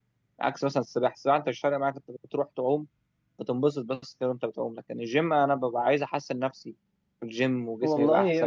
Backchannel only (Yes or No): No